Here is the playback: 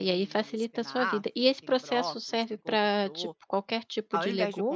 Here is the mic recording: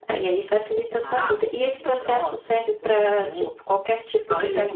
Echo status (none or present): present